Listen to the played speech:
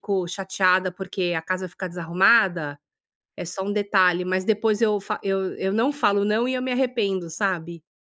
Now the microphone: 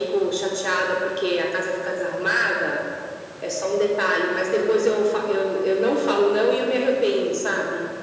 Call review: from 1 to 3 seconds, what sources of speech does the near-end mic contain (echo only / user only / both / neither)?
echo only